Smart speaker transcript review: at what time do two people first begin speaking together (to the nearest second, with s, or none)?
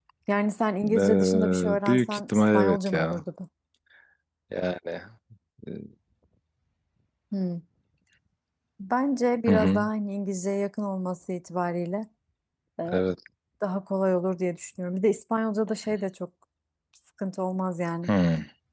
1 s